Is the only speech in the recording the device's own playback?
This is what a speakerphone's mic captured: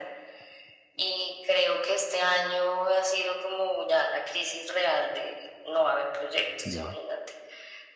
No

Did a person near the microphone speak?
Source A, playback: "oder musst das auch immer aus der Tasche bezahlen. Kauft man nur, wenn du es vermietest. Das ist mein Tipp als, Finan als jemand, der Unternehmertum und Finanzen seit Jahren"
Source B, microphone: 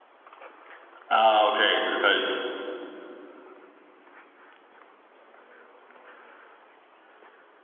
Yes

